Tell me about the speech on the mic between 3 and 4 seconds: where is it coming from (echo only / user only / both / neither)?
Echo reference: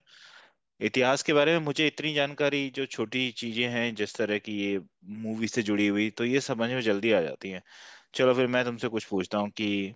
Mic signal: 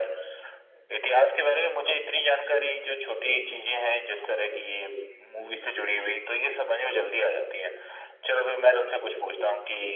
echo only